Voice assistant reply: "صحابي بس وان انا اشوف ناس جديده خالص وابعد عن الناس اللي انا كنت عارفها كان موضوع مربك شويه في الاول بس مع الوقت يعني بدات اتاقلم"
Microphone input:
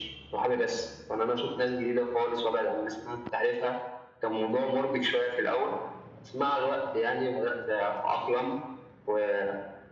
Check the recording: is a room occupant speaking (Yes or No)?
No